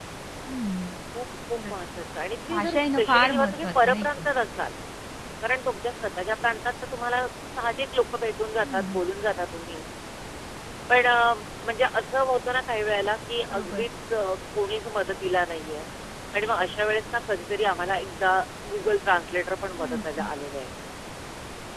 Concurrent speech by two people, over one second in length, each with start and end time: 2.5-4.2

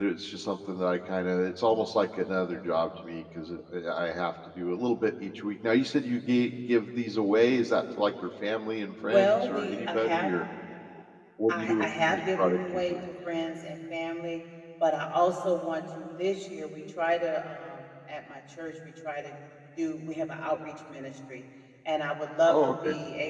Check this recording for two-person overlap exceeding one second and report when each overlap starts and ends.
9.0-10.3, 11.5-13.0

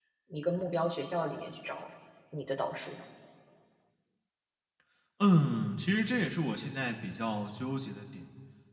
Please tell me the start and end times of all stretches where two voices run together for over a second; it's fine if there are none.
none

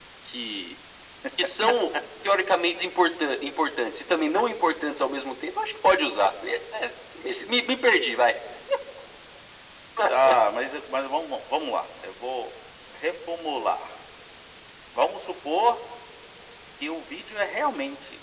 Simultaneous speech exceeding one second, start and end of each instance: none

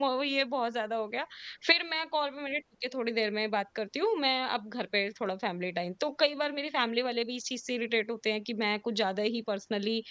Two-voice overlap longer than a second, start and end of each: none

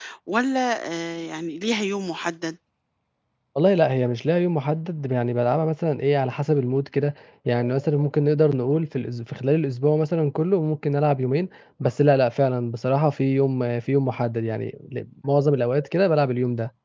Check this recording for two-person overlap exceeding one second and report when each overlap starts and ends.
none

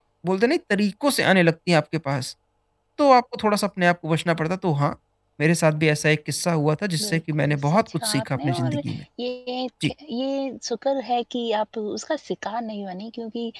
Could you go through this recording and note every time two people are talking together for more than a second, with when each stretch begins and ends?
7.0-8.7

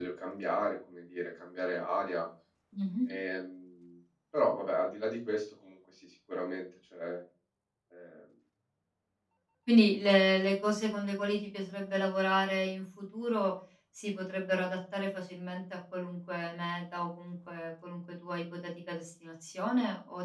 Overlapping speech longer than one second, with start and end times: none

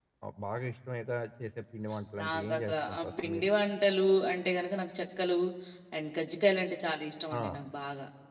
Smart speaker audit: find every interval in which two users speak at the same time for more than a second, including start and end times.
2.2-3.5

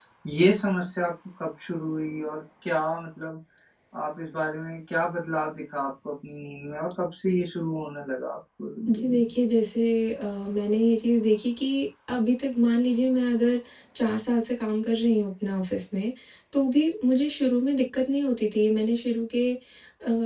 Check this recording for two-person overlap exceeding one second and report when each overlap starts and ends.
none

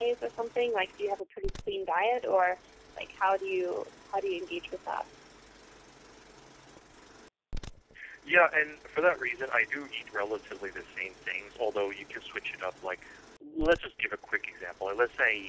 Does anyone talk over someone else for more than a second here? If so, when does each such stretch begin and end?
none

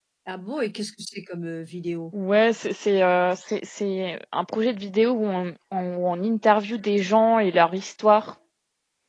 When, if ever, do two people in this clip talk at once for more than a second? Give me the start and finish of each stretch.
none

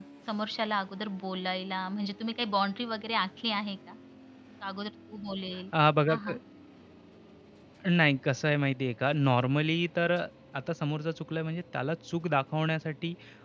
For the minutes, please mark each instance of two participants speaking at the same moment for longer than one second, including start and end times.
none

